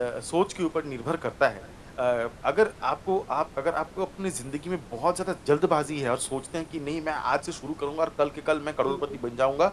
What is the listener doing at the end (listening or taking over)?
listening